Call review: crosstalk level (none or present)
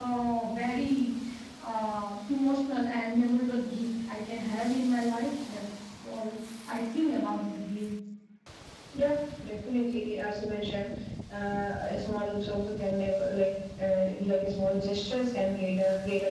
none